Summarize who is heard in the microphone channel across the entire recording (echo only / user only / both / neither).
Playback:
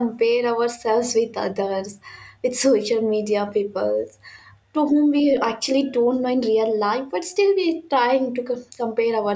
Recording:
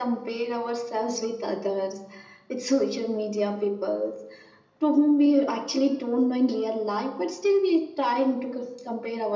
echo only